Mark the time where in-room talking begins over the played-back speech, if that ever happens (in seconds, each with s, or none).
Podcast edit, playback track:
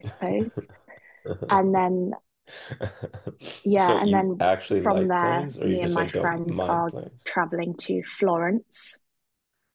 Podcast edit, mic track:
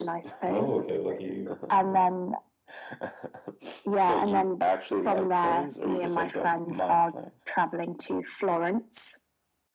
0.5 s